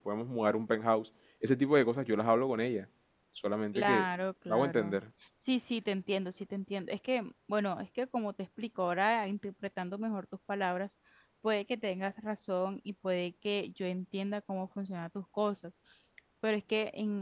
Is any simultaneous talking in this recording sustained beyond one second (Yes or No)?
No